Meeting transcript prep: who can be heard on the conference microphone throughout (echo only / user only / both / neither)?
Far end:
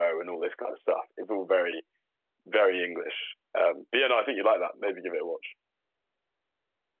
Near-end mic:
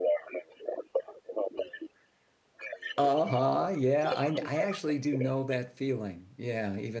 both